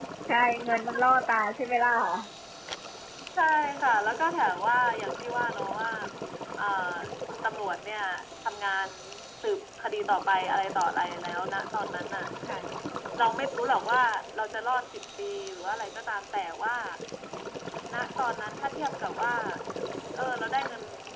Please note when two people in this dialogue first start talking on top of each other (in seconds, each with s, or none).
none